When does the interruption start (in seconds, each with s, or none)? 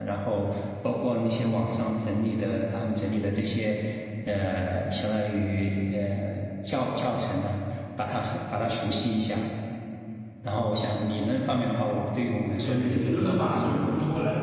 12.6 s